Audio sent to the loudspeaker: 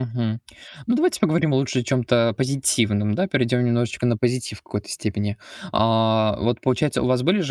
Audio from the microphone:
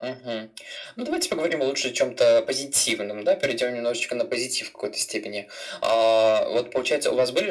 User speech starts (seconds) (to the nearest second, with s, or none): none